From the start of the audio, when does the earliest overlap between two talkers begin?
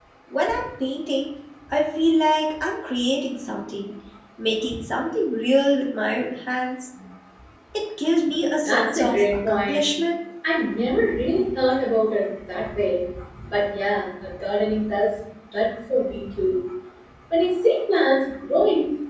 8.7 s

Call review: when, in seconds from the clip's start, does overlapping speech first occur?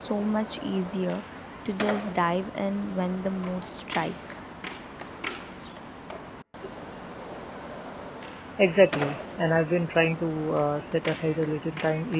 none

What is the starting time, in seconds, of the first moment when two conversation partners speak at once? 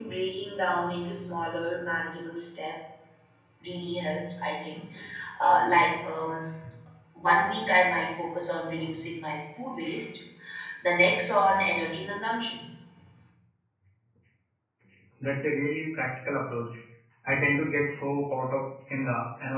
none

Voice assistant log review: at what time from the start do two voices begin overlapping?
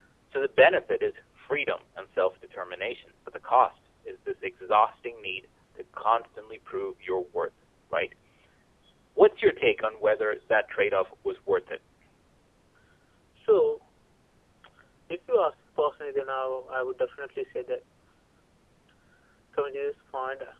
none

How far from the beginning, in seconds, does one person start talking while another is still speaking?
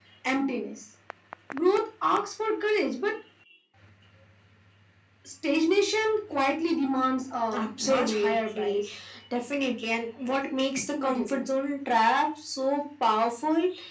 7.5 s

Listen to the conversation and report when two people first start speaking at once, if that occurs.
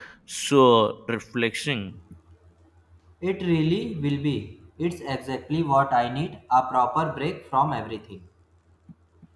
none

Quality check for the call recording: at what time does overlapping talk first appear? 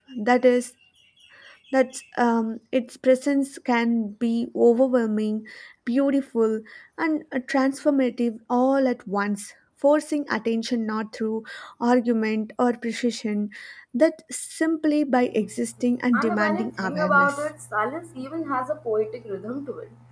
16.1 s

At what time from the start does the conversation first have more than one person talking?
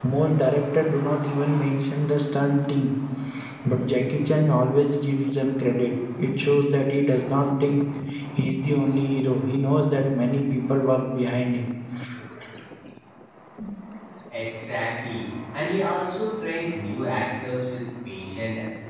none

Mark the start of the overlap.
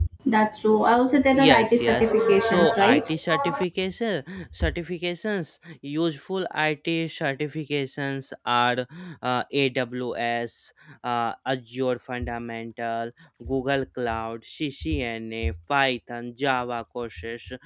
1.2 s

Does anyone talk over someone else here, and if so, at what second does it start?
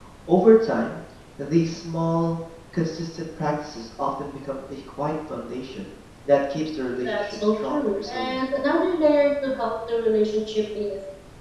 7.0 s

